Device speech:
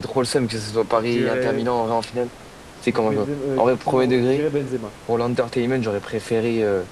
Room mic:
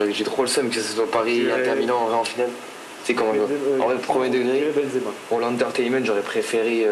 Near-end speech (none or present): none